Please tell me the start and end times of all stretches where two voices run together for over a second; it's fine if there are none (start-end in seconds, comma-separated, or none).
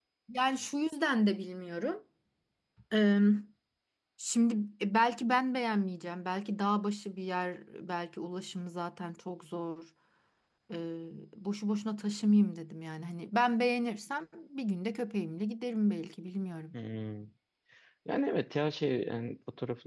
none